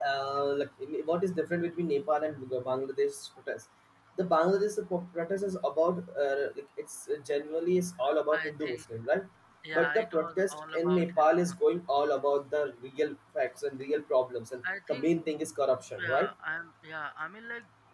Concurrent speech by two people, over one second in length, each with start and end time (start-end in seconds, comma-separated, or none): 9.7-11.4